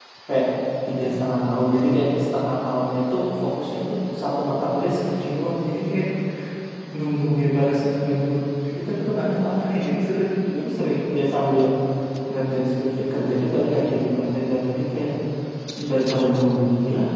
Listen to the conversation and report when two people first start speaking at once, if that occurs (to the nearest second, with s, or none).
none